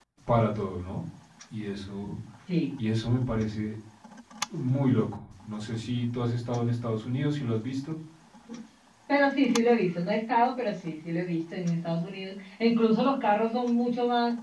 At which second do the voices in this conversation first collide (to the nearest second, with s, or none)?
none